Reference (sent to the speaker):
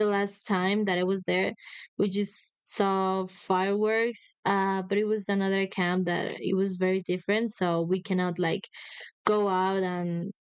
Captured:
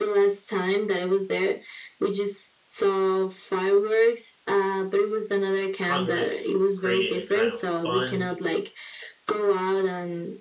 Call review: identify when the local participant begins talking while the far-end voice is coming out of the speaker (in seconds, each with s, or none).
5.8 s